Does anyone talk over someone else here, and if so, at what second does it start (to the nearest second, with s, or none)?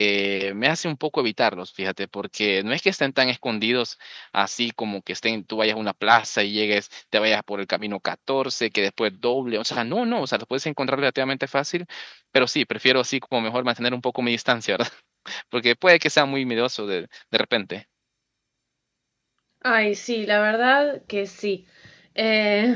none